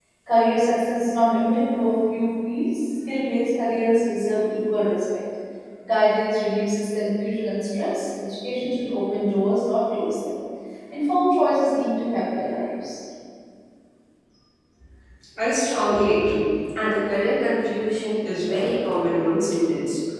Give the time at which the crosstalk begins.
none

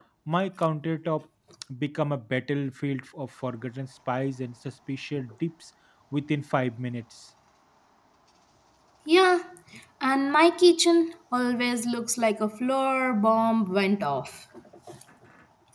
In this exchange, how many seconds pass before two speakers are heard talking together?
none

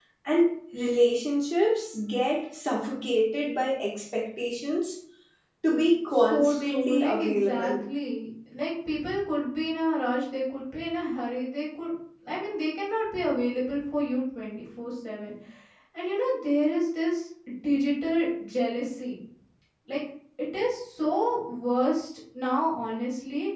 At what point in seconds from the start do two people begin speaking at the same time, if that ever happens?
6.3 s

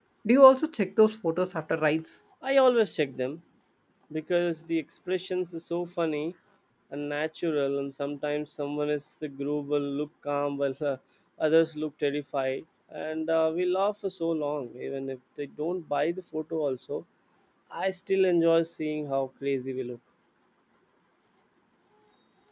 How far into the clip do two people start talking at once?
none

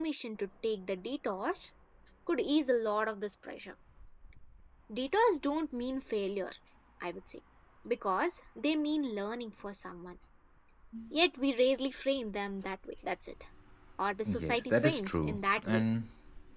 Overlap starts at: 14.2 s

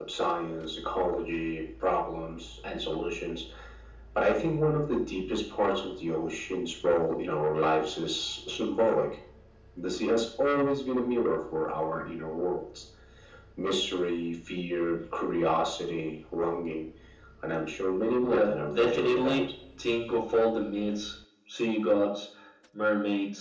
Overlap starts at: 18.2 s

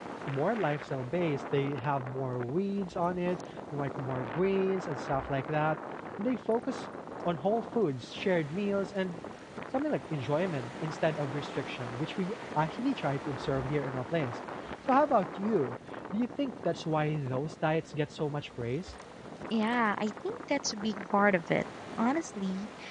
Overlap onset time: none

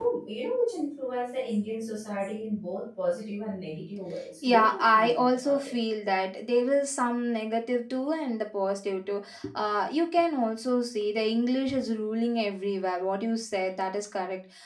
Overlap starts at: 4.4 s

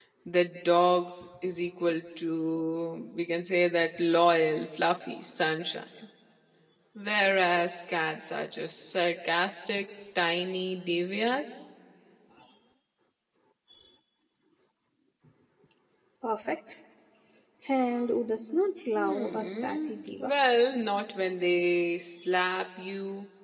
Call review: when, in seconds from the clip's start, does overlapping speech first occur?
18.9 s

